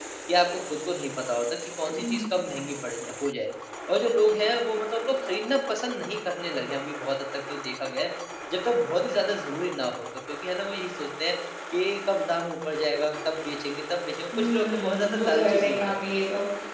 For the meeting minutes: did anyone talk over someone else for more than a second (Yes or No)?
Yes